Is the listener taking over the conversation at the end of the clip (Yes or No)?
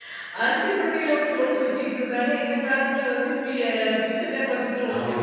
Yes